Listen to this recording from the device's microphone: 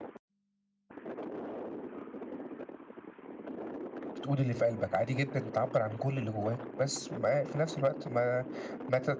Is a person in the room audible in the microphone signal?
Yes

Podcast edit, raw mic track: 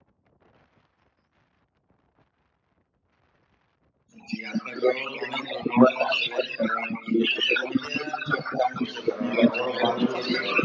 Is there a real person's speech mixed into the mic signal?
Yes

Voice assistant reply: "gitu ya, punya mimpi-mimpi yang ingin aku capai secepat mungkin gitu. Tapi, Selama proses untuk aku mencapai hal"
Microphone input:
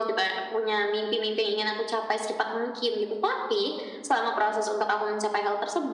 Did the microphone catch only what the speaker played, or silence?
Yes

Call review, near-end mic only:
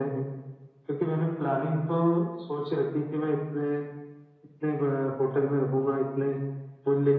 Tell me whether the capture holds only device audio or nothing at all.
Yes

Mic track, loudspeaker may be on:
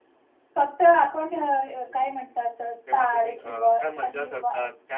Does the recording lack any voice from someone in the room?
No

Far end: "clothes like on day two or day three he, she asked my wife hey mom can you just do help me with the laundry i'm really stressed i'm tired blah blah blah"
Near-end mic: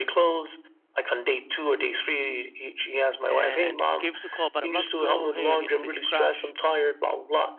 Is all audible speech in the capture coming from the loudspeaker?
No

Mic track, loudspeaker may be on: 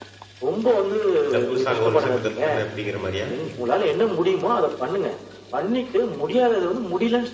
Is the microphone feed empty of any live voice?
No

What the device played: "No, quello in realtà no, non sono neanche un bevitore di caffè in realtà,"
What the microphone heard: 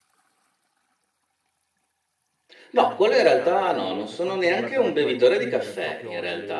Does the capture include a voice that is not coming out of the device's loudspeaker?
Yes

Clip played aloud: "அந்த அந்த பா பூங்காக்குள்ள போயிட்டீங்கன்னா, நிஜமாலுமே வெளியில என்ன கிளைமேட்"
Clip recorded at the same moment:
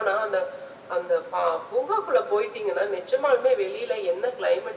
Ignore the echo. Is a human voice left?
No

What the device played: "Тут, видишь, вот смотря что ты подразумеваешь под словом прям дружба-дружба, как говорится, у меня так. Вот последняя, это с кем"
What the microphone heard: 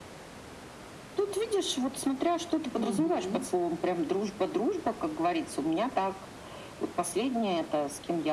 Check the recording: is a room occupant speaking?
Yes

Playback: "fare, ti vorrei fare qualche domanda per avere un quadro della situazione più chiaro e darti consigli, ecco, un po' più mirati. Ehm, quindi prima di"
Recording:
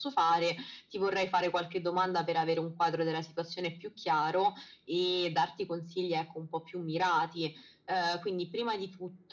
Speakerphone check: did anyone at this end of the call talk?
No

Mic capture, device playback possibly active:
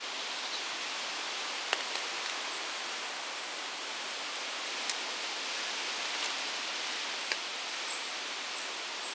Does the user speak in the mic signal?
No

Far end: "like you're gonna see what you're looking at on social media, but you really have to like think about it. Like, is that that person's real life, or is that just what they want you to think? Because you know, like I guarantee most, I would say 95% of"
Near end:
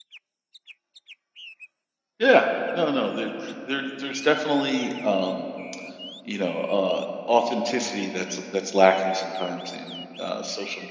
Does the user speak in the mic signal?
Yes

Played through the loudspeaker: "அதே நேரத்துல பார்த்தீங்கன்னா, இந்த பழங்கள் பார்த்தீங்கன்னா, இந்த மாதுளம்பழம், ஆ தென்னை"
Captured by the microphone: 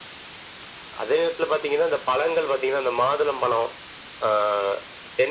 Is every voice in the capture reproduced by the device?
Yes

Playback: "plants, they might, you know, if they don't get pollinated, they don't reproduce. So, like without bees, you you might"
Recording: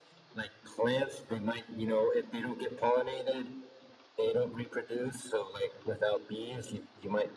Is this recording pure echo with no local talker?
Yes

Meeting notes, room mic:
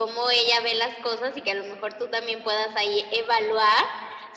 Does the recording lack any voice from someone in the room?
Yes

